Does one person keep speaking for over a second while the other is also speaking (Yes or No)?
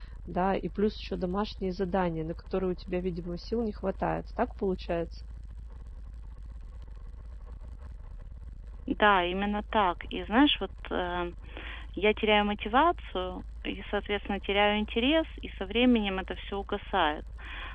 No